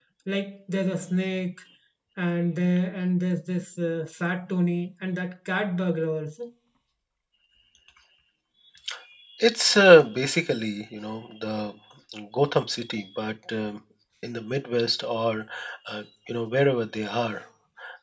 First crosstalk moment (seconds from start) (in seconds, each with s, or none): none